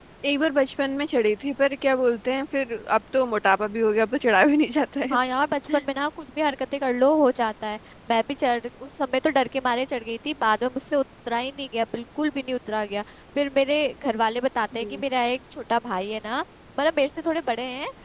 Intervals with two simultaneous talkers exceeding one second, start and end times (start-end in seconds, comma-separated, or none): none